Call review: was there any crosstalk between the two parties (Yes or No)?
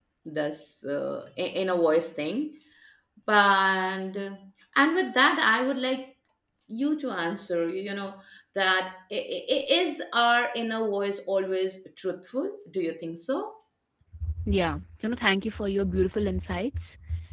No